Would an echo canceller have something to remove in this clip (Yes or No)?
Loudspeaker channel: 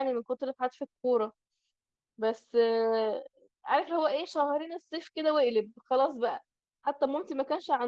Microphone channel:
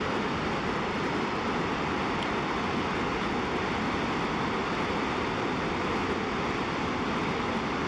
No